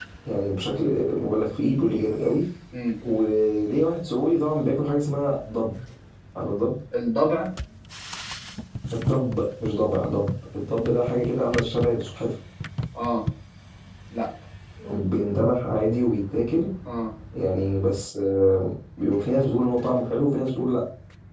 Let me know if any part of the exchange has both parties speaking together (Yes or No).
No